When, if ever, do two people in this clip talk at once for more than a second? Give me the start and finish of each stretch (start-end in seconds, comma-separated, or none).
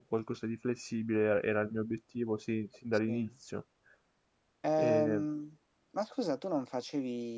none